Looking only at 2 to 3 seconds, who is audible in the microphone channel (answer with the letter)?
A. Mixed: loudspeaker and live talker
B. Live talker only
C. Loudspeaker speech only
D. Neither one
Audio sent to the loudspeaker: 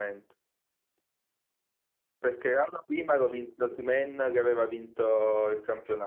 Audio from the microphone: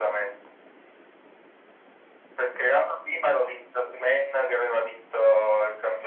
C